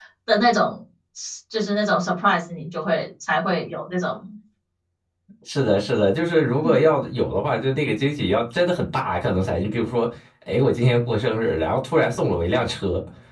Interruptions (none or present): none